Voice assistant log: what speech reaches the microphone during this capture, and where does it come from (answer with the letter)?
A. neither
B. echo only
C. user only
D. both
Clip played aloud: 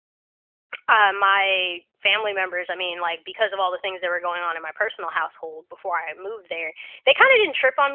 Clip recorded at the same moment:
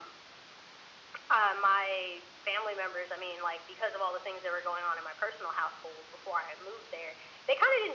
B